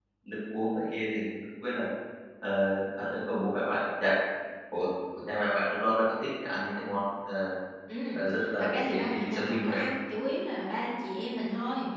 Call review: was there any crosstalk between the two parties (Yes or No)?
Yes